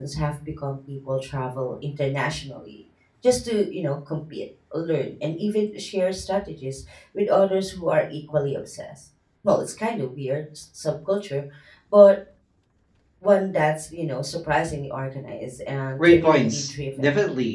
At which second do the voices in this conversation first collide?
16.0 s

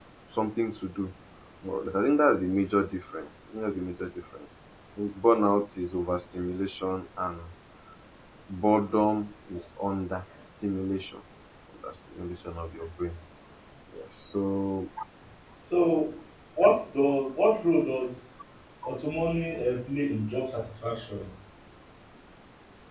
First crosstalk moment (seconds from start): none

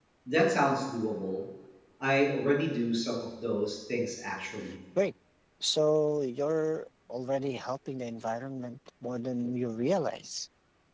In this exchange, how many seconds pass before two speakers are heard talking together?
none

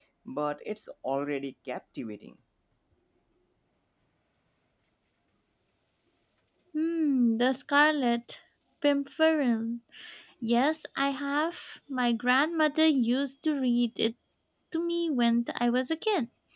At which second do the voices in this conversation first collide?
none

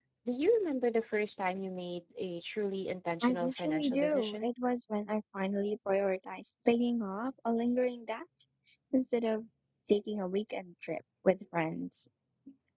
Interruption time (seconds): 3.2 s

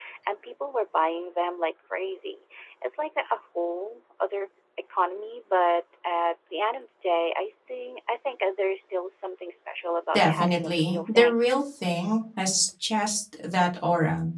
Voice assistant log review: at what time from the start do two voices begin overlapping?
10.1 s

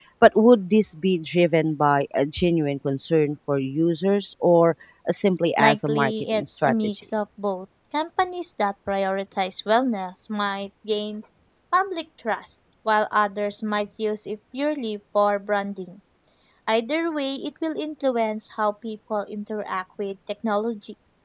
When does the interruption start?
5.6 s

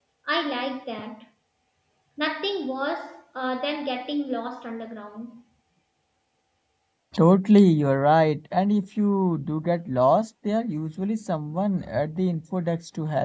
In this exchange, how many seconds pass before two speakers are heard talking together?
none

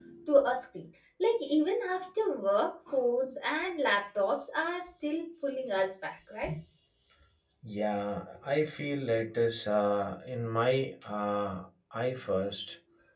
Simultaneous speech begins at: none

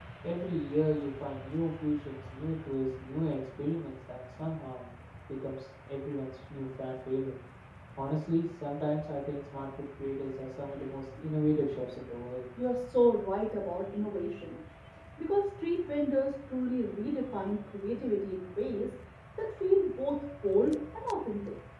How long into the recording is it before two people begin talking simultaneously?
none

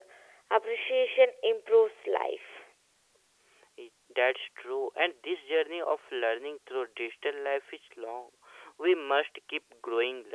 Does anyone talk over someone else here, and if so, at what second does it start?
none

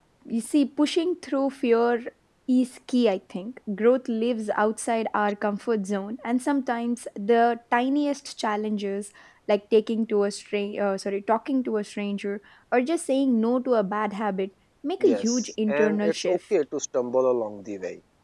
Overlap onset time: 15.0 s

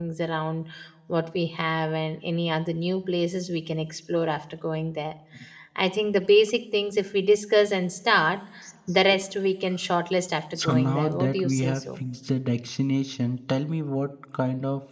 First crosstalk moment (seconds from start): 10.5 s

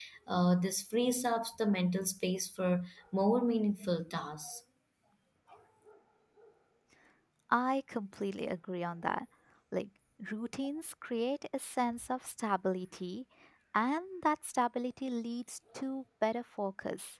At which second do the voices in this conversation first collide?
none

